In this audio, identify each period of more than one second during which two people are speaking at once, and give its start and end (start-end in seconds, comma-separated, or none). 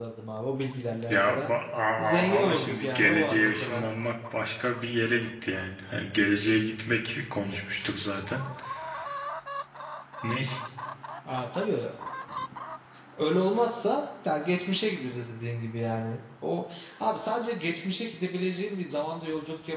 2.2-3.9